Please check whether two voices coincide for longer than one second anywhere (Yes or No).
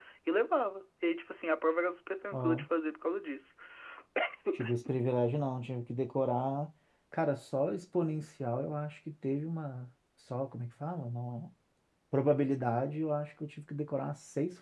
No